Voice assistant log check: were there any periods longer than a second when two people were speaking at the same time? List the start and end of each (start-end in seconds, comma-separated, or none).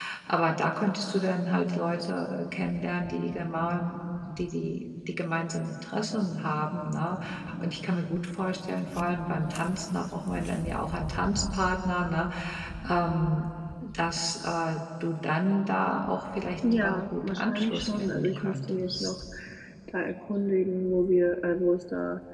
16.7-19.1